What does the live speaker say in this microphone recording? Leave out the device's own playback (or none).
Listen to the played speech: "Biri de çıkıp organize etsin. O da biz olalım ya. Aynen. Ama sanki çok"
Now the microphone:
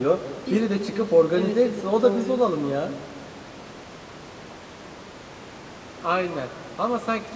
Biz evet evet doğru.